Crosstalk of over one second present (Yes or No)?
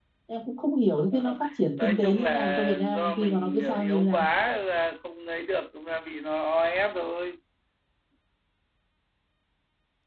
Yes